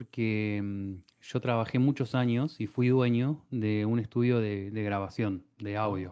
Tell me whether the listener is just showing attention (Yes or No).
Yes